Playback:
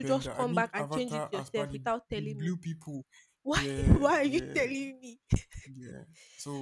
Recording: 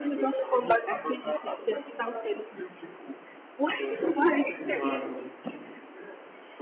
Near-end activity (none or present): present